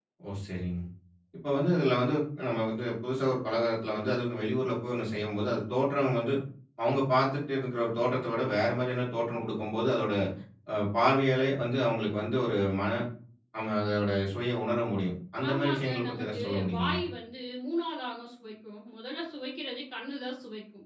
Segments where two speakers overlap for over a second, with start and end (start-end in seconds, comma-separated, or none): 15.5-17.0